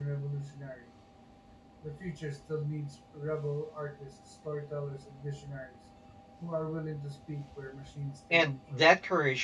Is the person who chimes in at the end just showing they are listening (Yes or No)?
No